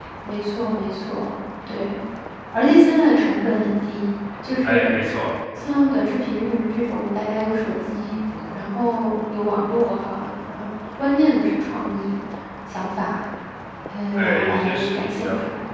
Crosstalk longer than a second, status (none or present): present